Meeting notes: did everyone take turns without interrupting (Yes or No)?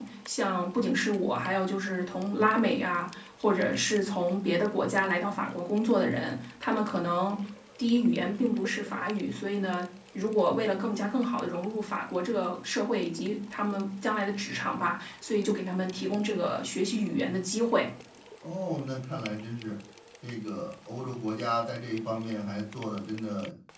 Yes